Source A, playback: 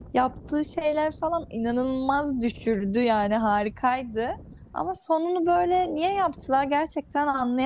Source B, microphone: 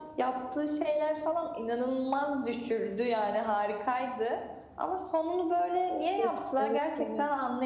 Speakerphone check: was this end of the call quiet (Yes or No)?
No